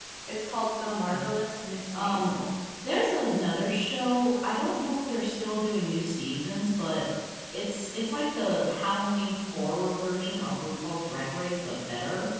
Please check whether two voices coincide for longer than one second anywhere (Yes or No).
No